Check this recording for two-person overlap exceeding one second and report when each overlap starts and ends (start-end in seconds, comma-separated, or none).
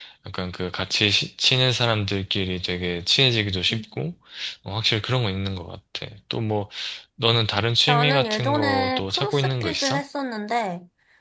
7.9-10.0